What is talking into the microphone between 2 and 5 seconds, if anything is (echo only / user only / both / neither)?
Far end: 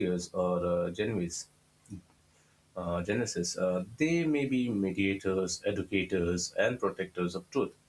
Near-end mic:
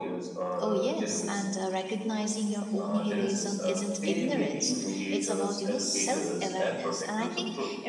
both